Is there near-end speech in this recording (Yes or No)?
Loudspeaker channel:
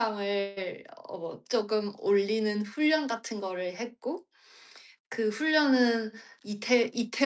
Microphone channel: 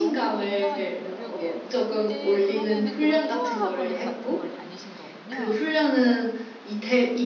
Yes